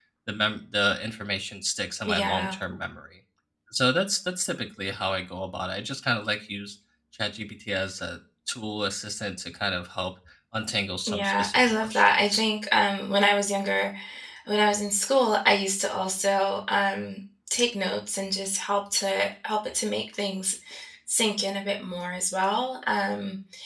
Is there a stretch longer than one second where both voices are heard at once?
Yes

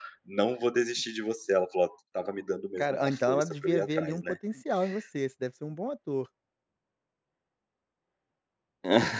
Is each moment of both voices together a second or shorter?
No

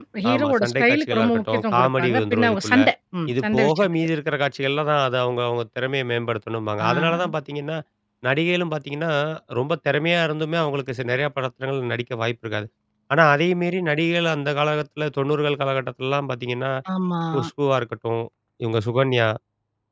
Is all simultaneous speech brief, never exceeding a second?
No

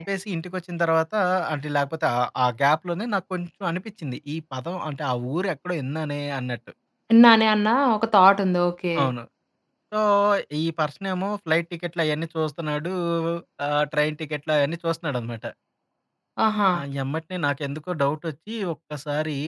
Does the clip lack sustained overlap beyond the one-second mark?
Yes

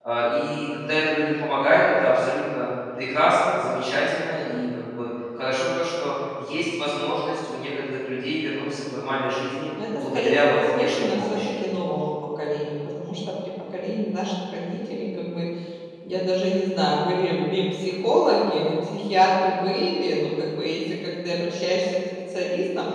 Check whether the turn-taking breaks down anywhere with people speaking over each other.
Yes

